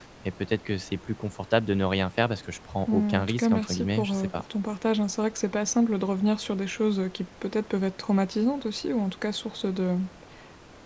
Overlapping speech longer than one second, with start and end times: 2.9-4.3

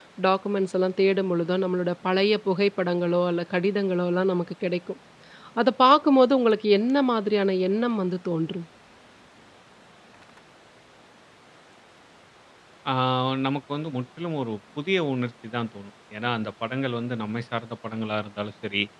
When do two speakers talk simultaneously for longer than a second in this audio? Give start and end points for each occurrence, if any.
none

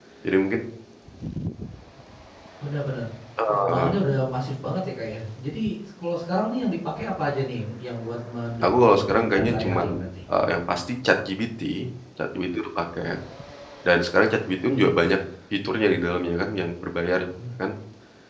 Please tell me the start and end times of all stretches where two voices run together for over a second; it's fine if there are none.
8.6-9.9

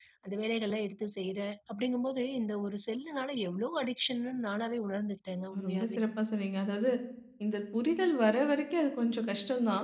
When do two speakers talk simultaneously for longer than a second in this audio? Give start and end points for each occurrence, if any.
none

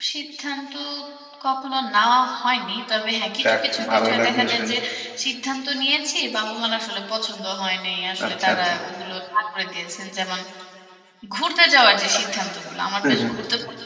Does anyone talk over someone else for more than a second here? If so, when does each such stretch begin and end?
3.4-4.8

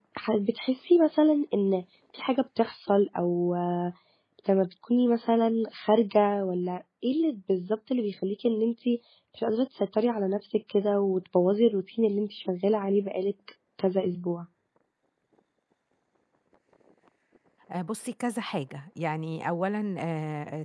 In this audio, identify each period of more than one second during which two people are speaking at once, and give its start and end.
none

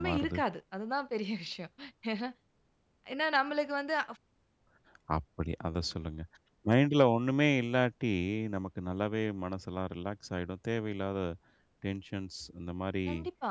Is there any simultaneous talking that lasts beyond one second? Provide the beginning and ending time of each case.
none

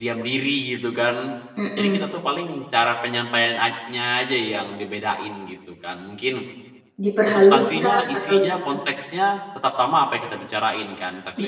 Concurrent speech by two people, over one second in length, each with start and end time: 7.3-8.7

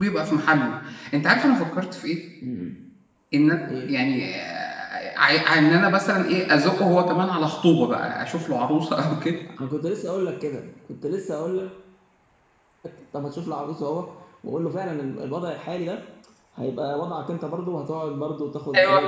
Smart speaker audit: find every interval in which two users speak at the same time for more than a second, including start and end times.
none

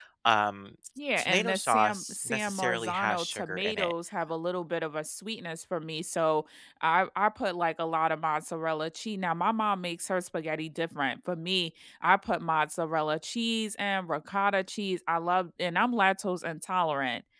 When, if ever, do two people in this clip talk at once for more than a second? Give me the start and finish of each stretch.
1.2-3.9

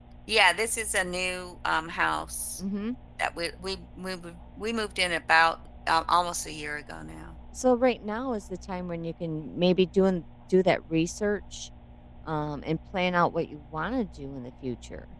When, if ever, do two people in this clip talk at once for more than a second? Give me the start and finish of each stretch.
none

